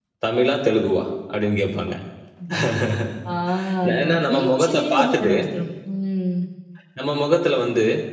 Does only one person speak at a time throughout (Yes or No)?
No